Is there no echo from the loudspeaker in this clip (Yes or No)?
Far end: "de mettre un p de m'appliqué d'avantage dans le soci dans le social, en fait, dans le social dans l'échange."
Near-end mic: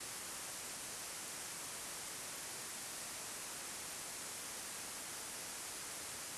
Yes